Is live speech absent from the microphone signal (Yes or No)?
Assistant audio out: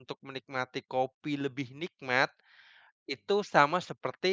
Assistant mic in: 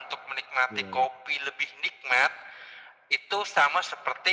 No